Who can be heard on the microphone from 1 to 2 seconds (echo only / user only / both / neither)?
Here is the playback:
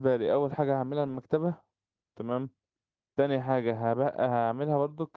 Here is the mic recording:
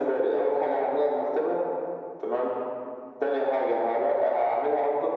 echo only